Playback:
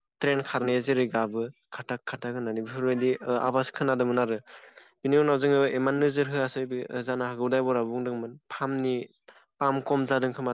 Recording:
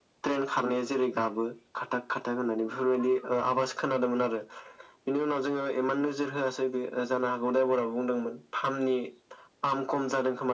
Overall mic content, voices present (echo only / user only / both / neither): echo only